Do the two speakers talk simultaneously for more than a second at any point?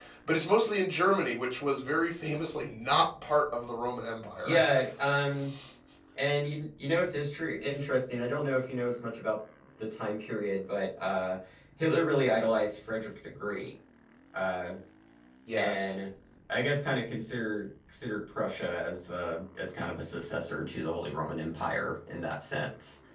No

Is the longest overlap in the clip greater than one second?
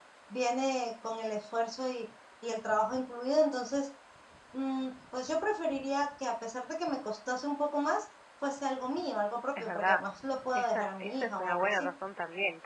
Yes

